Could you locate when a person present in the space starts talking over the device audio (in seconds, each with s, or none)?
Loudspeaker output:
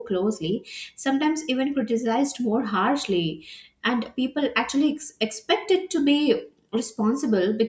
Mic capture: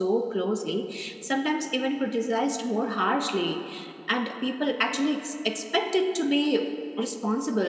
none